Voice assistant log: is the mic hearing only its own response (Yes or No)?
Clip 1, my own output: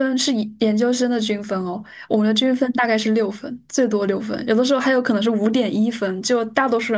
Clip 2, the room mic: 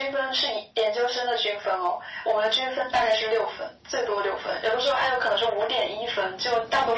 Yes